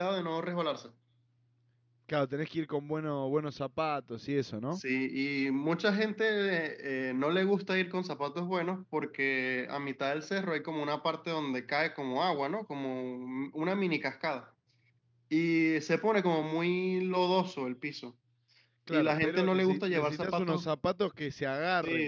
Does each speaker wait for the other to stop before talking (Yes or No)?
No